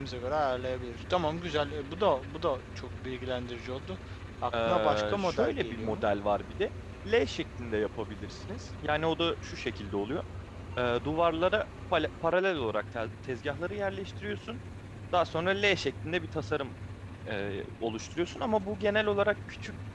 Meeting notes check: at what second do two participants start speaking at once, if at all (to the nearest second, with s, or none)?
5 s